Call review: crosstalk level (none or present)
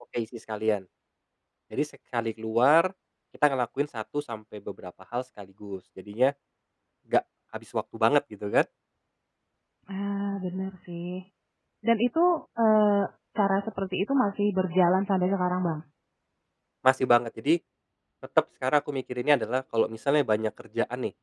none